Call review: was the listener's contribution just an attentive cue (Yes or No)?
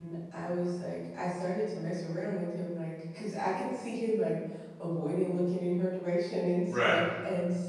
Yes